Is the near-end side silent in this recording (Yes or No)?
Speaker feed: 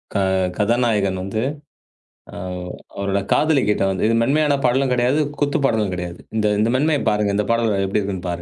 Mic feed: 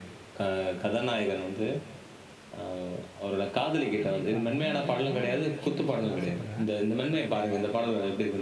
No